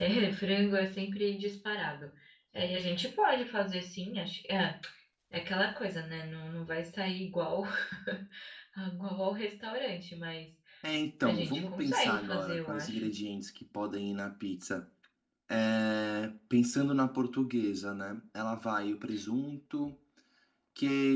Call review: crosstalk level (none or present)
present